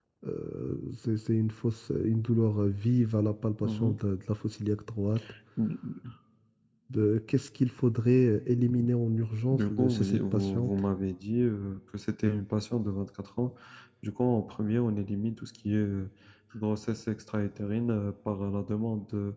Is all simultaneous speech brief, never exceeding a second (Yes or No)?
No